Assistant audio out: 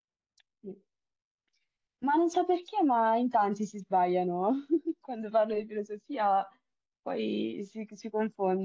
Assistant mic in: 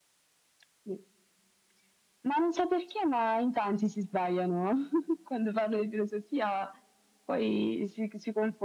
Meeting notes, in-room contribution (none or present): none